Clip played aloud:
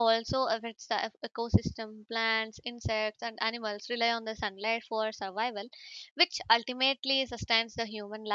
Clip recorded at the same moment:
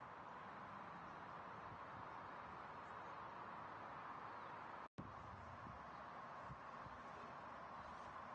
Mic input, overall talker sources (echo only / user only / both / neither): neither